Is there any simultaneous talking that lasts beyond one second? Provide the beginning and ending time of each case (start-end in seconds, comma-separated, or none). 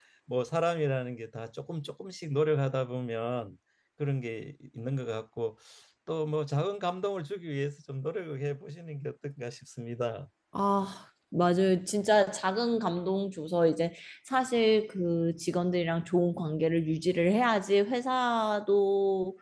none